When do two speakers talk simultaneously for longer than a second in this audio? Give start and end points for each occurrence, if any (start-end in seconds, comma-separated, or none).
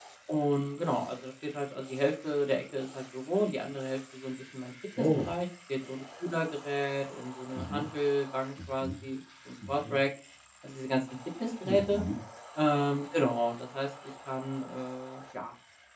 none